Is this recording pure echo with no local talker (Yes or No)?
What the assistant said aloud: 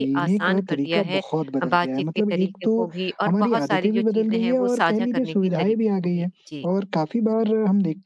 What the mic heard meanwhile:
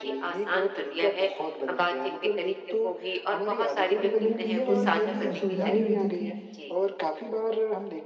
No